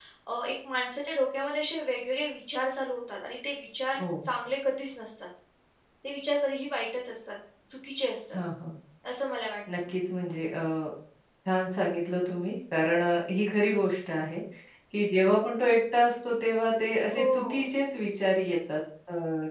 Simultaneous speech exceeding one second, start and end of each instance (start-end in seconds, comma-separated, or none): none